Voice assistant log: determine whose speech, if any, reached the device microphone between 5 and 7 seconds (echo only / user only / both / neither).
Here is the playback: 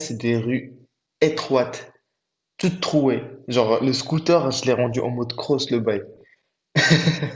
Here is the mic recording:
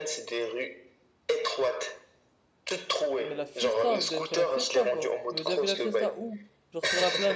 both